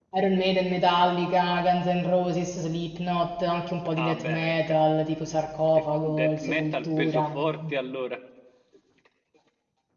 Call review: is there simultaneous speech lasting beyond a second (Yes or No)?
Yes